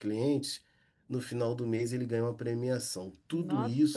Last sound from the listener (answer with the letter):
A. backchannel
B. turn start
B